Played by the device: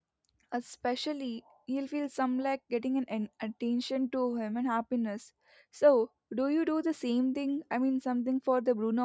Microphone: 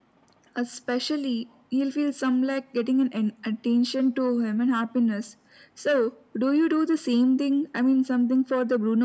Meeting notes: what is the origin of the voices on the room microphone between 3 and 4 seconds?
echo only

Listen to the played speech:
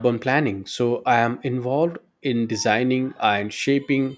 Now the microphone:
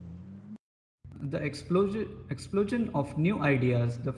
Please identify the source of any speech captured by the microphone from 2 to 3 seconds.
user only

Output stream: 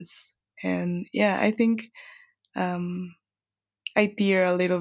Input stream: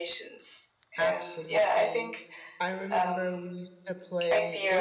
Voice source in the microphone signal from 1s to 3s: both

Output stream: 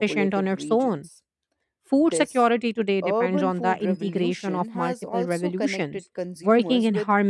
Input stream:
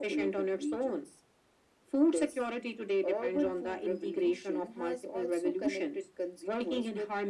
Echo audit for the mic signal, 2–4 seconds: echo only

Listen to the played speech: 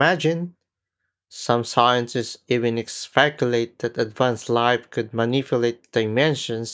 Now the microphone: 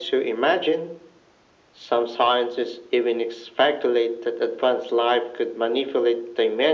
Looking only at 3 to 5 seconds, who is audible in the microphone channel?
echo only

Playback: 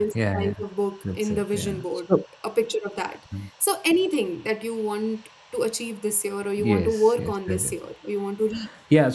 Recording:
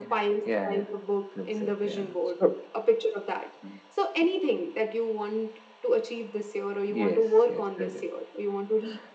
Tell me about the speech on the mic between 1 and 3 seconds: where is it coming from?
echo only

